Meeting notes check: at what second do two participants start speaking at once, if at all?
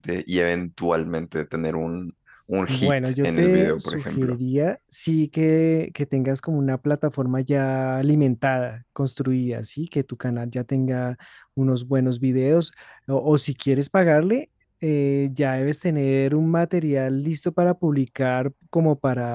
2.7 s

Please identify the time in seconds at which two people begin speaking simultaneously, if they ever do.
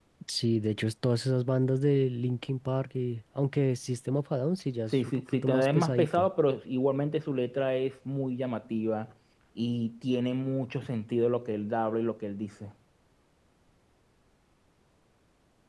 4.9 s

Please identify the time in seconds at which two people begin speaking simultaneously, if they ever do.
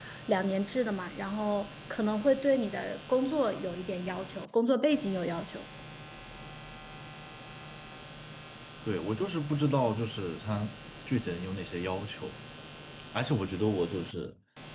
none

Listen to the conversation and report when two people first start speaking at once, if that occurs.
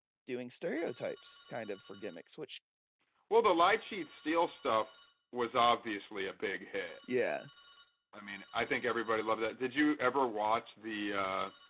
none

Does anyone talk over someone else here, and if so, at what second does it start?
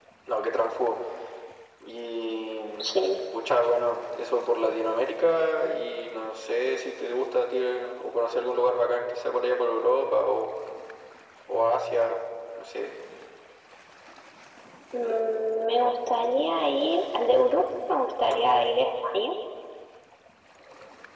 none

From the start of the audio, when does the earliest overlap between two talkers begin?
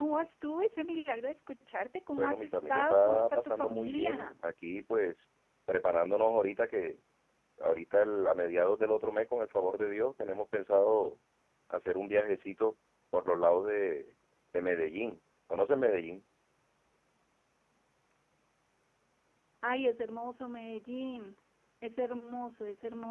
2.1 s

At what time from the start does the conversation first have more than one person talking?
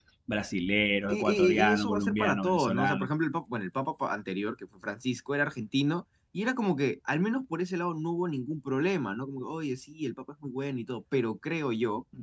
1.1 s

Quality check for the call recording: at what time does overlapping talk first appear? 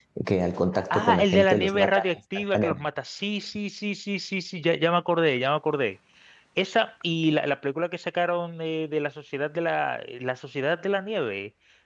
0.9 s

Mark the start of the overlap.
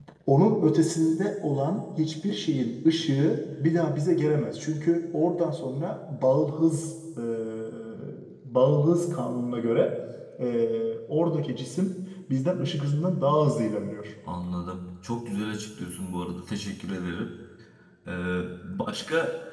none

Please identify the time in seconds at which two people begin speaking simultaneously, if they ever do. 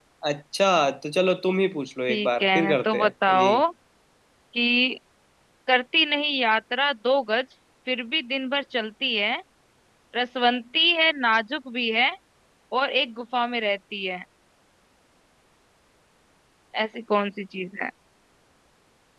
2.1 s

